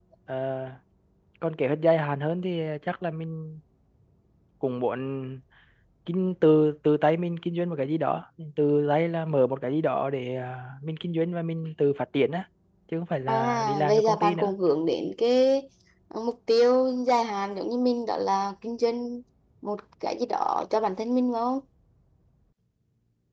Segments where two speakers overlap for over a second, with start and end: 13.3-14.5

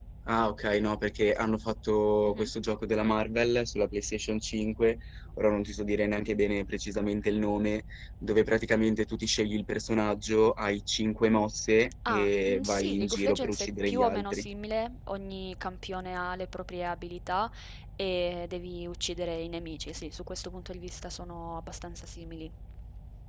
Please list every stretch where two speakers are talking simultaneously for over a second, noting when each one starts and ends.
12.1-14.5

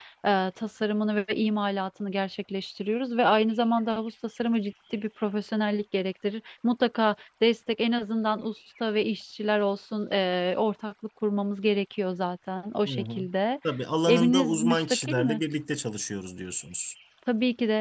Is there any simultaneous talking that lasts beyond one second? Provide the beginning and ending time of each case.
14.1-15.4

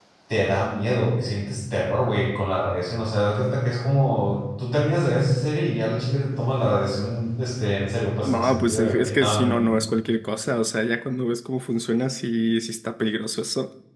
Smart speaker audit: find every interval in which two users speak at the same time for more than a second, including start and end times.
8.2-9.7

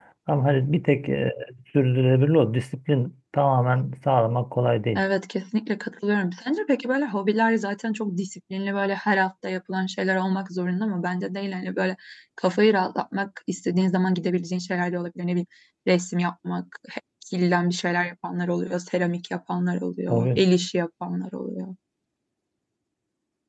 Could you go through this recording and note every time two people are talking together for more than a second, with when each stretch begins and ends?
none

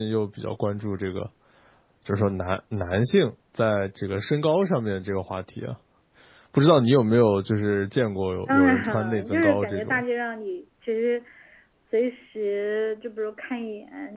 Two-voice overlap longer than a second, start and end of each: 8.5-10.0

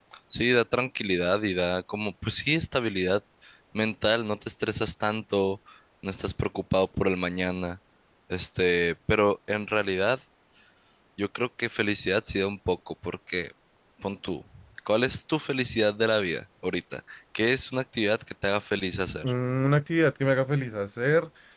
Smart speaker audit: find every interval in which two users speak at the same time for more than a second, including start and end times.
none

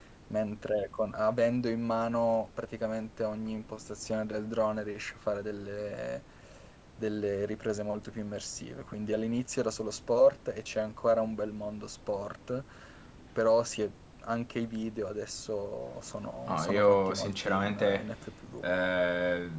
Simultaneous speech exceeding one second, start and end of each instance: 16.5-18.0

